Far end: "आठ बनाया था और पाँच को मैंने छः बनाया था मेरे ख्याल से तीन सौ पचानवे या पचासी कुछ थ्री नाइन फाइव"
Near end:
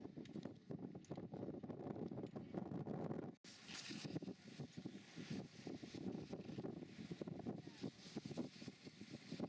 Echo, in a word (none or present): none